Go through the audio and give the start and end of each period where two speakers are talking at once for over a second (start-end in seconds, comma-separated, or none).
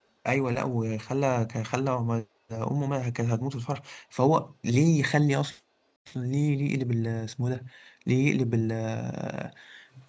none